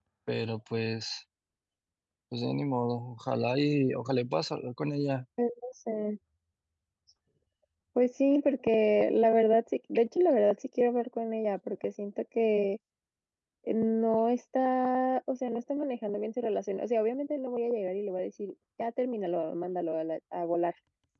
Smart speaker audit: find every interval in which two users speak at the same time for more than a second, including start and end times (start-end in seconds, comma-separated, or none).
none